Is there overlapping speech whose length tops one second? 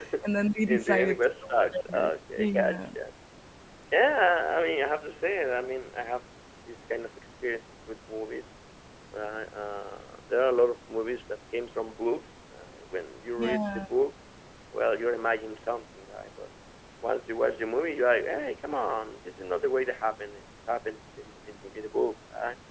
Yes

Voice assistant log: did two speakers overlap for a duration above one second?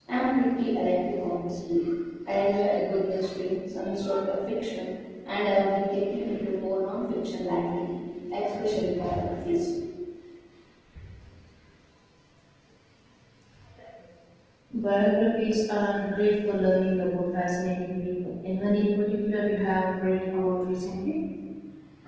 No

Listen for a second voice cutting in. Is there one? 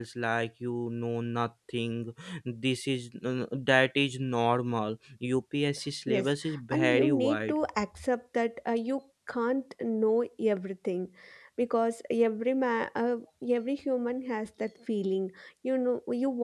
Yes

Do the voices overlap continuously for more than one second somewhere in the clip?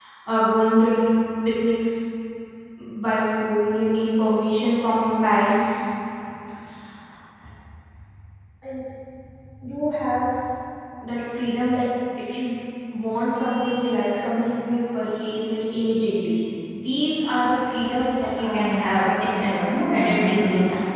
Yes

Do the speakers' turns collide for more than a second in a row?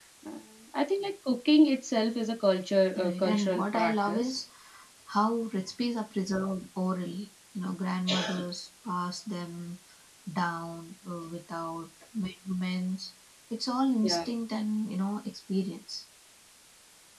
Yes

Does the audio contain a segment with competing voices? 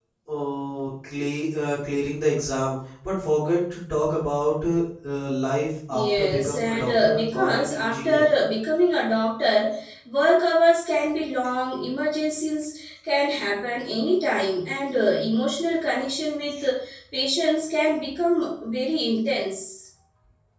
Yes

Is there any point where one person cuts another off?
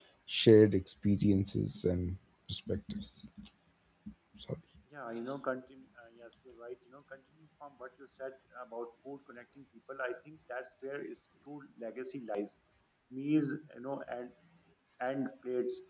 No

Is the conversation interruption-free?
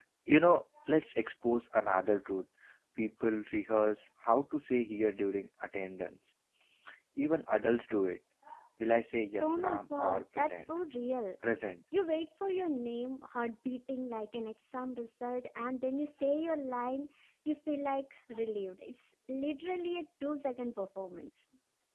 No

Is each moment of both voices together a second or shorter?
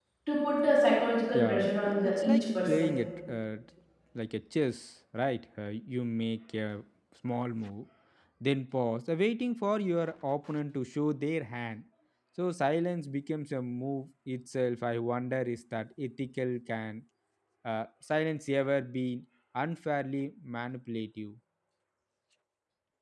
No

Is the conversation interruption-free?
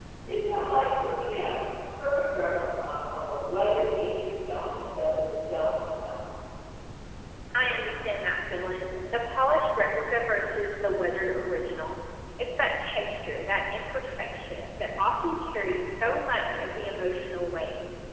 Yes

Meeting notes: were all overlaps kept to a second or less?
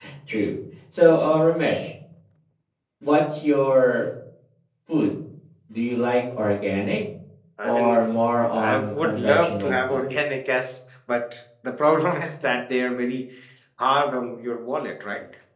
No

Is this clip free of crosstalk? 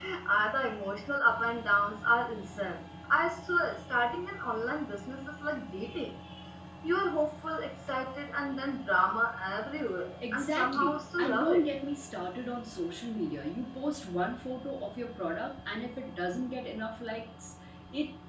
No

